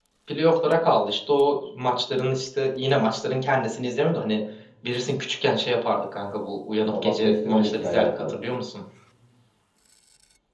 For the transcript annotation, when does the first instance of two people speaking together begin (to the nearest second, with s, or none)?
7 s